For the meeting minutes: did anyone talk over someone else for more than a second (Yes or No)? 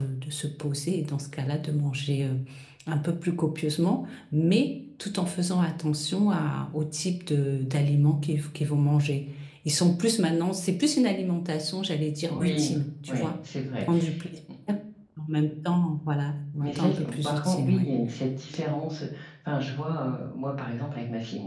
Yes